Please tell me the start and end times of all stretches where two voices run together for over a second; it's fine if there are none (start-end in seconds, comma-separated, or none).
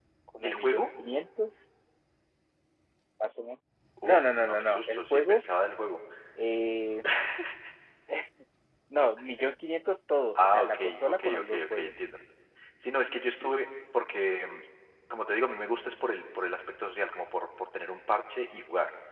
4.0-5.4, 10.4-11.9